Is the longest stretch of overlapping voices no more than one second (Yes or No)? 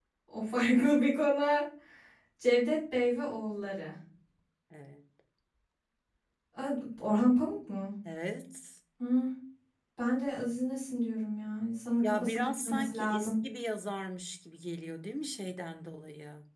No